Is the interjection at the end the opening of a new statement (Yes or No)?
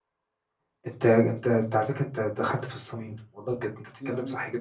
No